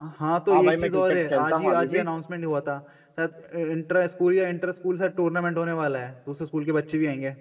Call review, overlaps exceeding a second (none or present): present